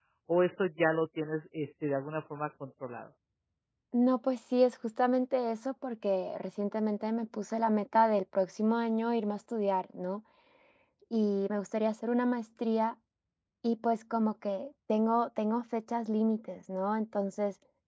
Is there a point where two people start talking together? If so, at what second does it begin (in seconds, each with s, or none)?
none